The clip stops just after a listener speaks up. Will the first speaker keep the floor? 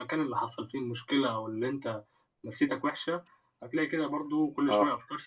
Yes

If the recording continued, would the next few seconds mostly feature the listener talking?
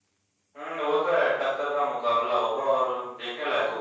Yes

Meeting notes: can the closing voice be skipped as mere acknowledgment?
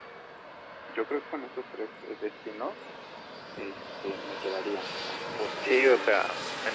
No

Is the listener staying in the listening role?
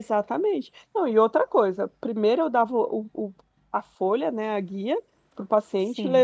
Yes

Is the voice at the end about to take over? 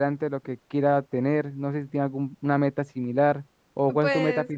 Yes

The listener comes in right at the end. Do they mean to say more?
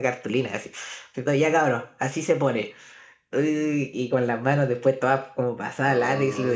No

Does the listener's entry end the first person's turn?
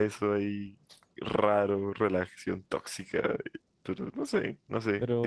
Yes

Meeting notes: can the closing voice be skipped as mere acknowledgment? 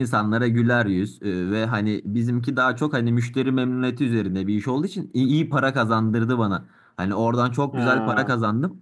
Yes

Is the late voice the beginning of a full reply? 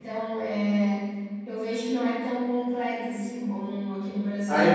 Yes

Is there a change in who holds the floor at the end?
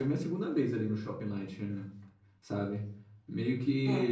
No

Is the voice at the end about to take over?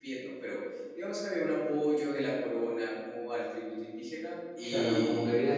Yes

